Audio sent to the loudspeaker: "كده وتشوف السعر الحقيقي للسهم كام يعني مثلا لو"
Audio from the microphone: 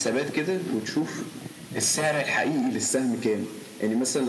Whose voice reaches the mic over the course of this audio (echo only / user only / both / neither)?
echo only